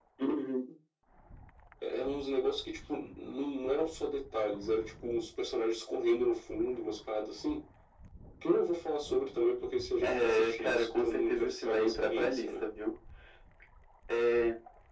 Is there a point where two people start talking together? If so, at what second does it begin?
10.0 s

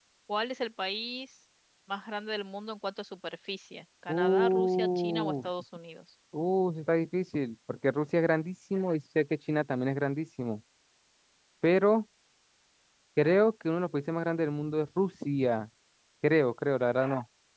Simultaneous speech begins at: 4.1 s

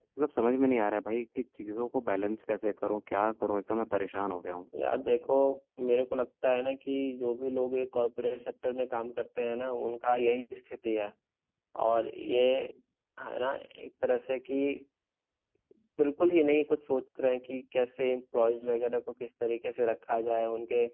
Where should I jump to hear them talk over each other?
none

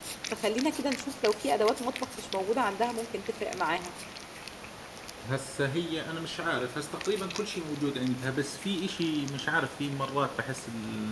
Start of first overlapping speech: none

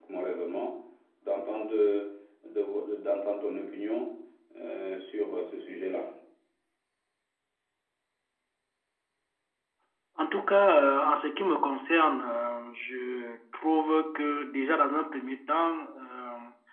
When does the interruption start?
none

